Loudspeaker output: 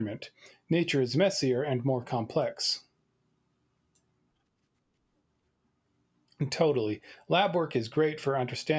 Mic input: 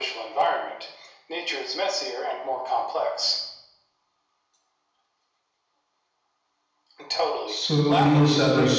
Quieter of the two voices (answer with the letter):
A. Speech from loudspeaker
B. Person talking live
A